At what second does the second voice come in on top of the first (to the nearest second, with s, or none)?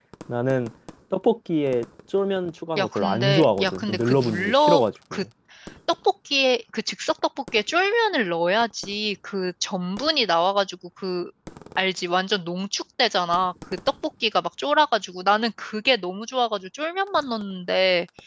3 s